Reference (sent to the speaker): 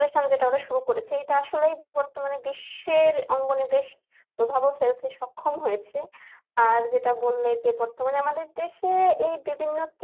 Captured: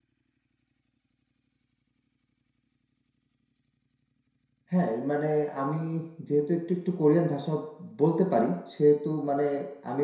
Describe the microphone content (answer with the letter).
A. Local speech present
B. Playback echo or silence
A